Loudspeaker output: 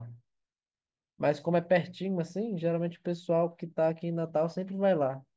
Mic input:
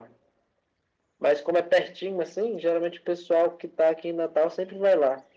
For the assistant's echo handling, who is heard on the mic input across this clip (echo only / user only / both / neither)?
echo only